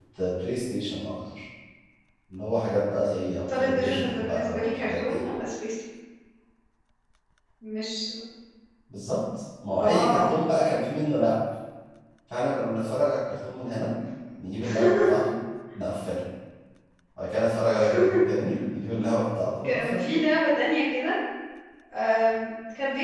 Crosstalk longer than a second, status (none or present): present